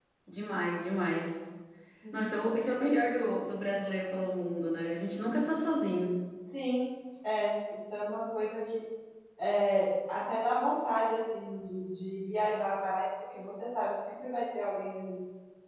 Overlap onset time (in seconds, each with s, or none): none